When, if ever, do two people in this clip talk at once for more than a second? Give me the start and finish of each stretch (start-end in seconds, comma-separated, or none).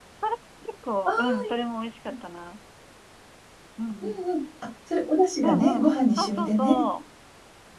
5.4-6.8